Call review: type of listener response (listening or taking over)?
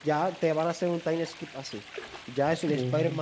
listening